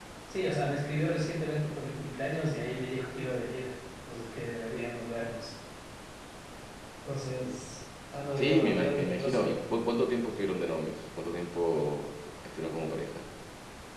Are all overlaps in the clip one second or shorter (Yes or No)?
No